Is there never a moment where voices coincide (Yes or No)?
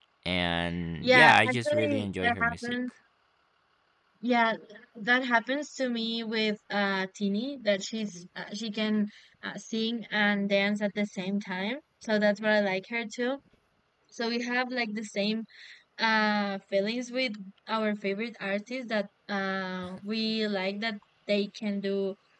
No